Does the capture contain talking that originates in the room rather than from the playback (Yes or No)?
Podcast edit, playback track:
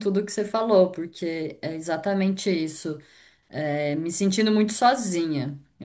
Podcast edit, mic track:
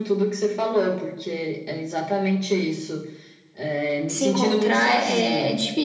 Yes